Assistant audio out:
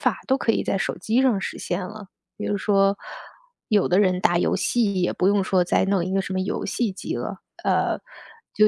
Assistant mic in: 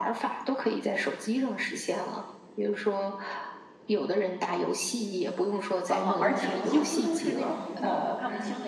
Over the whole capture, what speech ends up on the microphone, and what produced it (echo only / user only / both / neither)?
both